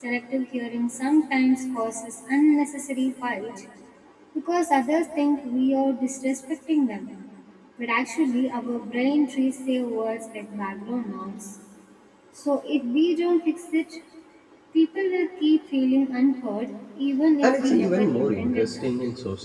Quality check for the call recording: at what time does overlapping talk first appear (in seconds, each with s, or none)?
17.4 s